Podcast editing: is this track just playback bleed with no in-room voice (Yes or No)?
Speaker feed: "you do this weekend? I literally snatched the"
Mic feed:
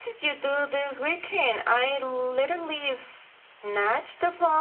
Yes